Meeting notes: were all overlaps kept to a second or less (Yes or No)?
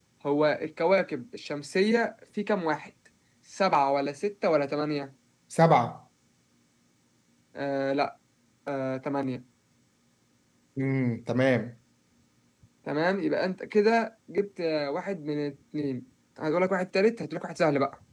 Yes